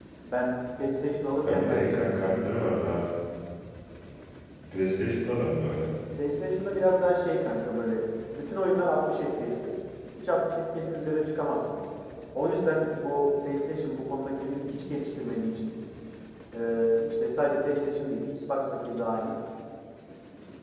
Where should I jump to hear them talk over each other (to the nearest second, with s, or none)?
1 s